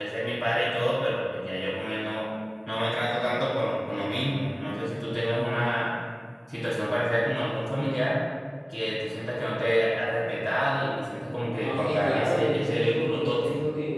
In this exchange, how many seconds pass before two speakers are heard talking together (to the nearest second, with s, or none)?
12 s